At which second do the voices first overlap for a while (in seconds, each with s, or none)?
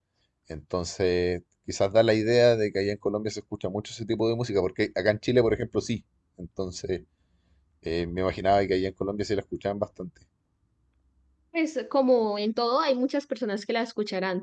none